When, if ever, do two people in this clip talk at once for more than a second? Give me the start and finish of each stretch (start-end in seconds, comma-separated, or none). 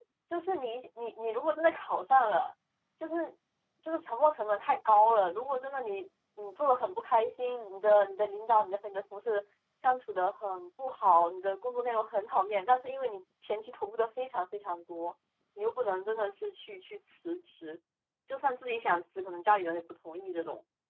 none